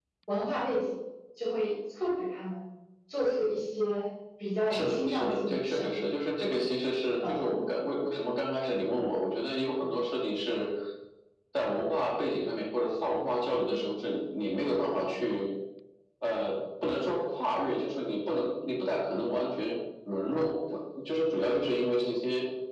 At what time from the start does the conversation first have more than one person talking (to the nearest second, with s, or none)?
5 s